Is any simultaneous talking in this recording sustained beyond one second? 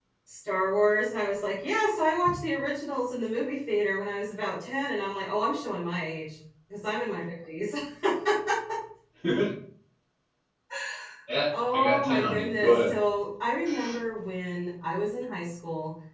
Yes, from 11.5 s

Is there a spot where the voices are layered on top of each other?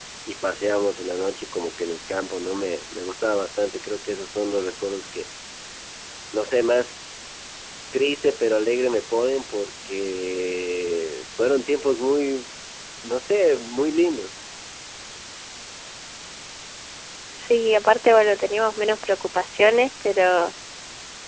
No

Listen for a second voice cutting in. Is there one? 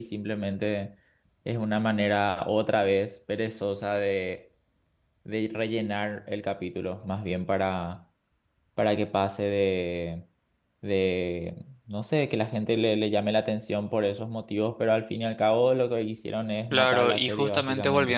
Yes, from 16.7 s

